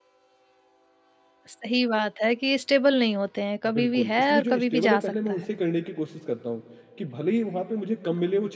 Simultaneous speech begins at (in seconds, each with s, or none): 3.6 s